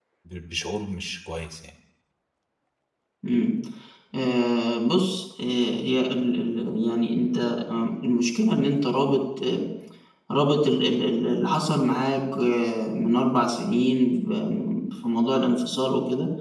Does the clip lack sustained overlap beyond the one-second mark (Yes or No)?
Yes